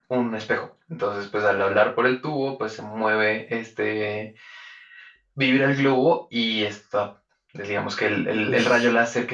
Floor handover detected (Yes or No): No